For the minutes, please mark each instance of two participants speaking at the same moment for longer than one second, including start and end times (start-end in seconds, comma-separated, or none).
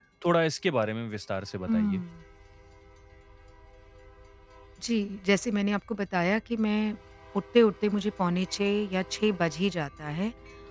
none